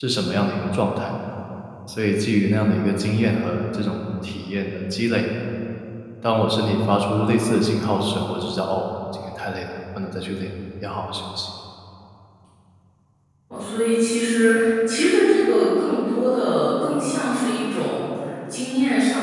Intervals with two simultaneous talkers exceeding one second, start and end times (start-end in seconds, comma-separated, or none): none